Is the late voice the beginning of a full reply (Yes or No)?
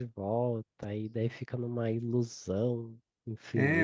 Yes